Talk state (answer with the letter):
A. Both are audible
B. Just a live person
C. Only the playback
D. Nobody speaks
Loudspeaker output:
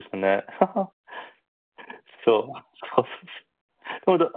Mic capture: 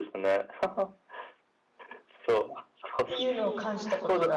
A